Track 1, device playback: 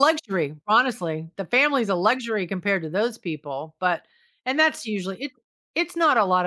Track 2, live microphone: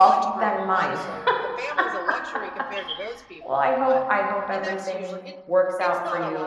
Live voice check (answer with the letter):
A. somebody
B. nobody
A